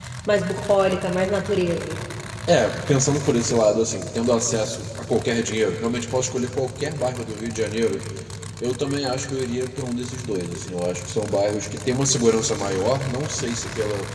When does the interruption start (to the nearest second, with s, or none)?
none